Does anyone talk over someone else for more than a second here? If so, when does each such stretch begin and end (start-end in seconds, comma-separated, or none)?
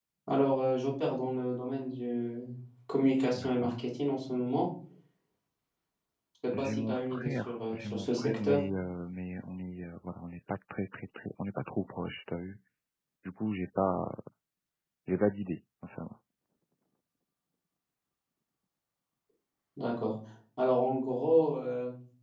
6.6-8.6